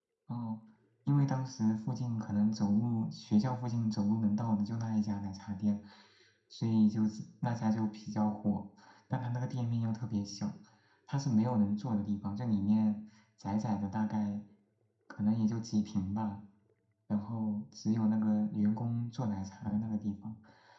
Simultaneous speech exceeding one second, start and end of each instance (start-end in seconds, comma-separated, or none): none